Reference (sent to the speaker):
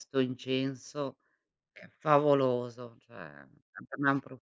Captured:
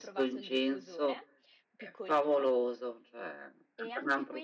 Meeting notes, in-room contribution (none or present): present